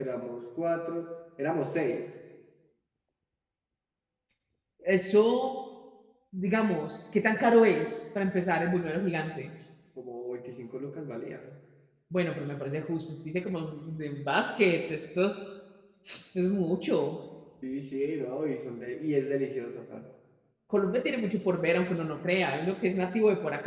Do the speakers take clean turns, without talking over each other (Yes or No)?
Yes